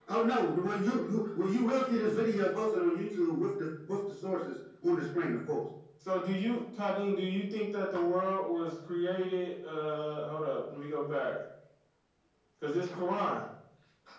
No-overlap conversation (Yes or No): Yes